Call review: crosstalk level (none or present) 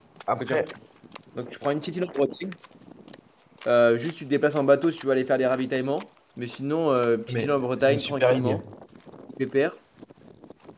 present